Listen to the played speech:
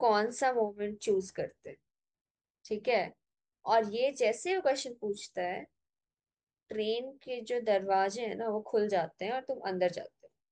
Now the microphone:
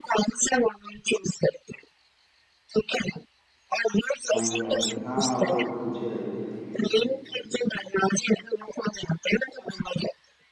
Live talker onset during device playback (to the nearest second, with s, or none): 4 s